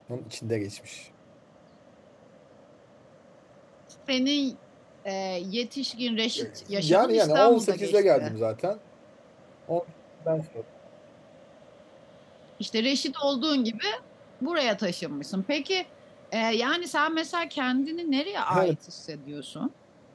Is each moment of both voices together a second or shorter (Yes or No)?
No